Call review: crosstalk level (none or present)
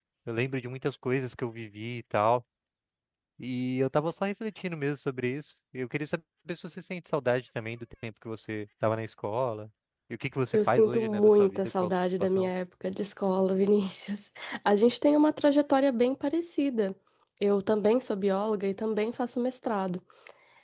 present